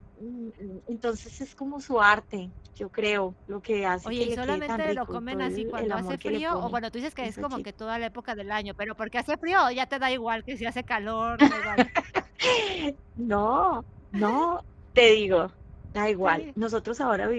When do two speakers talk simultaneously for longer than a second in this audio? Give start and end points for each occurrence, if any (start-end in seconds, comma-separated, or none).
4.1-6.8